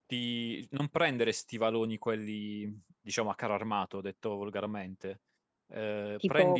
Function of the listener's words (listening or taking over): taking over